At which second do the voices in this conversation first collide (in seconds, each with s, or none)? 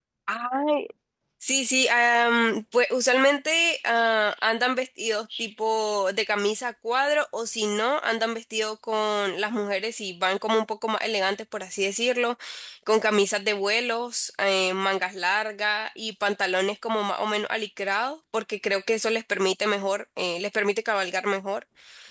none